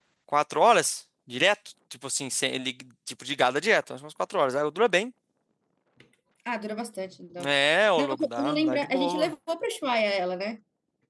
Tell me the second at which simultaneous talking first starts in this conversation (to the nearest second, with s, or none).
8 s